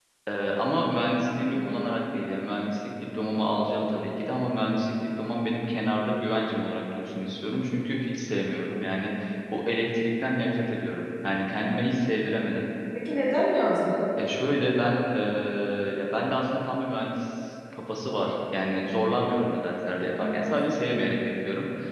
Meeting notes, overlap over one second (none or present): none